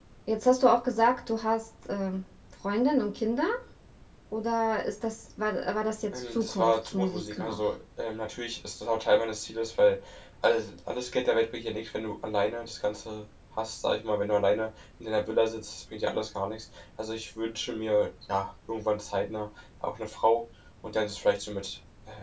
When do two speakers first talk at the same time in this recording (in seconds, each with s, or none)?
6.1 s